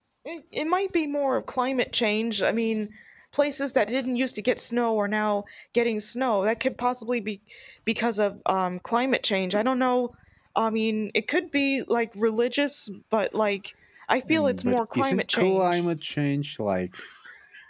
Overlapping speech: Yes, from 14.3 s

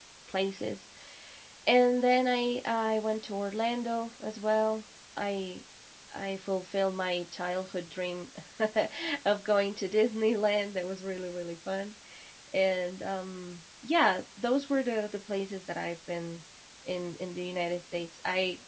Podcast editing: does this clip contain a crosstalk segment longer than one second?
No

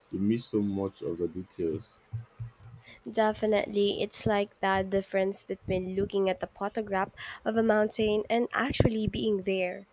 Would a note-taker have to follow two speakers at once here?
No

